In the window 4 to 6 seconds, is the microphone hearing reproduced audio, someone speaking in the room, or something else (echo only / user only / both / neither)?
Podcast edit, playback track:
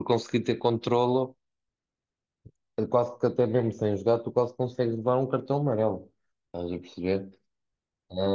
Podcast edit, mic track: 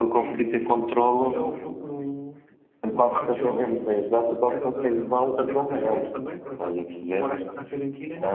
both